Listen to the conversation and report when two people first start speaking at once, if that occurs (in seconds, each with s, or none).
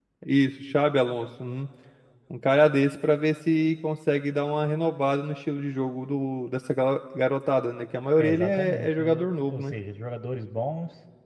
8.2 s